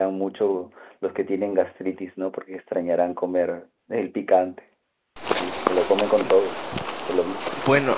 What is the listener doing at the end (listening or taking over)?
taking over